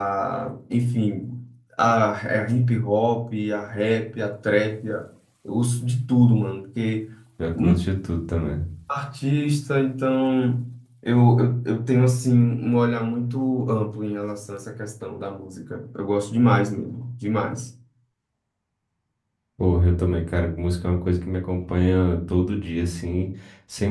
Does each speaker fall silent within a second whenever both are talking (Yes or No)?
Yes